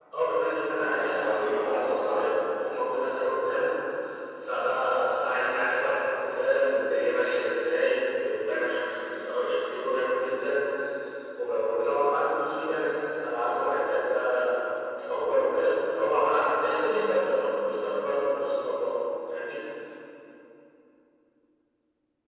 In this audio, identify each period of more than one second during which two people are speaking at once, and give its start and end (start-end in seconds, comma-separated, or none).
0.8-2.1